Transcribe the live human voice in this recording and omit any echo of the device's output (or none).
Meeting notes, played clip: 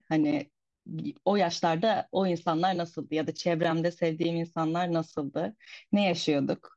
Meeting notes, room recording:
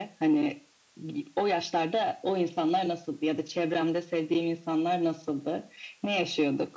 none